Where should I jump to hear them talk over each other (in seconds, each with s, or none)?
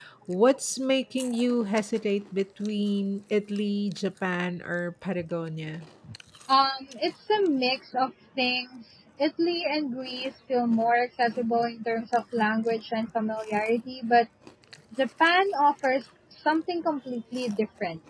none